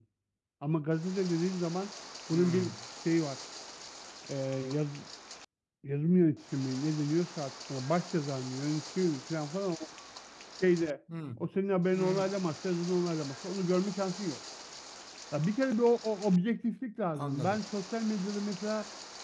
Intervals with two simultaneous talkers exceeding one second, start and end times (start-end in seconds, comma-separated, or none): none